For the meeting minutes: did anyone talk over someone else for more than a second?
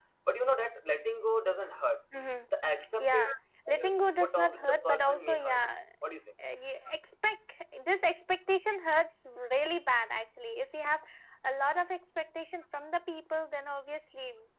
Yes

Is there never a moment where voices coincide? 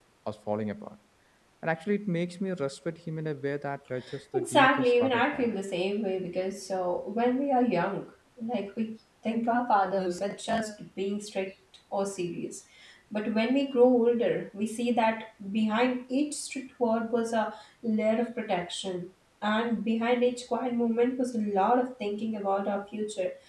No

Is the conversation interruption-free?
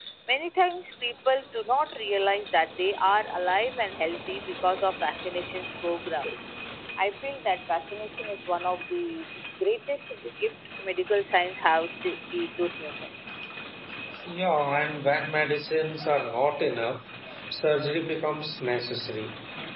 Yes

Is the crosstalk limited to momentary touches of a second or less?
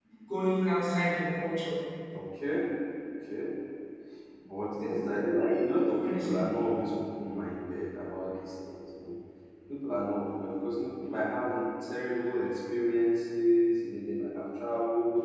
Yes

